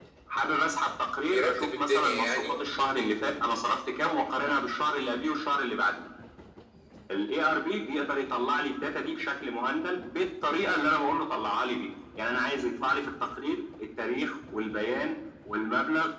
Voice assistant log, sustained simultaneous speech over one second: present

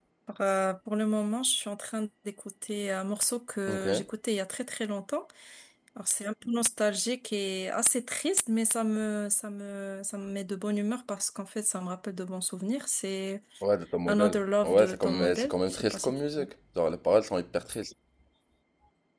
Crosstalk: present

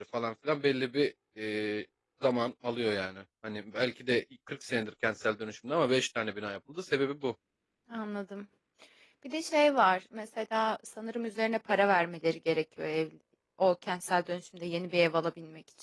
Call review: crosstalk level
none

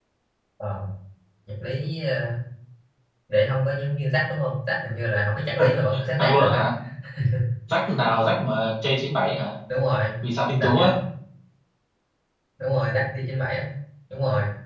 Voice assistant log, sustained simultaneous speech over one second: none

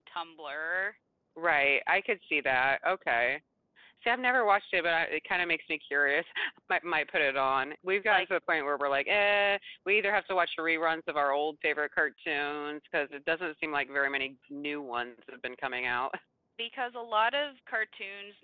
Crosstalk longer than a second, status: none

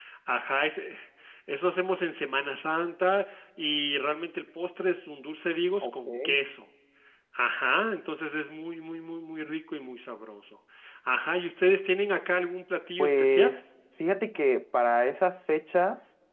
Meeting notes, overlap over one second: none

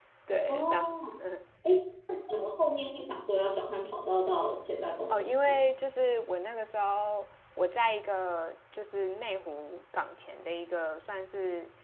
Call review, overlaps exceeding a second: none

